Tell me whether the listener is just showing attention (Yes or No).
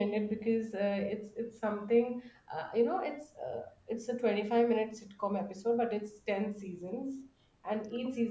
Yes